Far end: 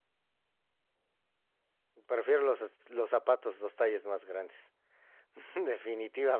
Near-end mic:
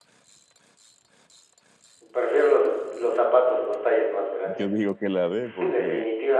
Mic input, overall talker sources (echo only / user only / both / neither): both